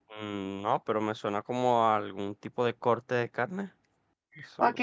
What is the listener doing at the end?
taking over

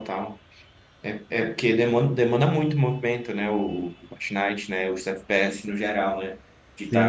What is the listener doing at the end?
listening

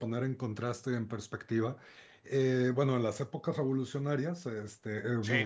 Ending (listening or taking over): listening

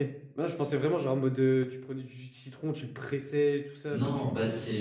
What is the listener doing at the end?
taking over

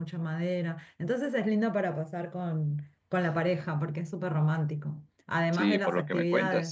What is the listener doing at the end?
taking over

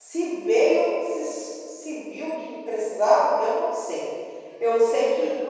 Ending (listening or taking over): listening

